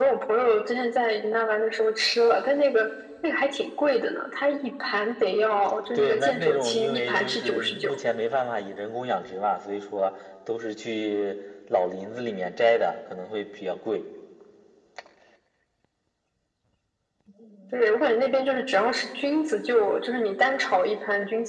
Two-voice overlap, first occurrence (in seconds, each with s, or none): 5.9 s